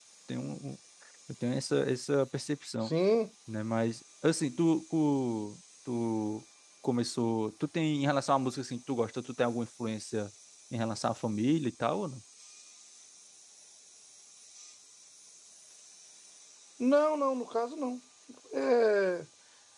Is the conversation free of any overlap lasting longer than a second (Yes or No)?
Yes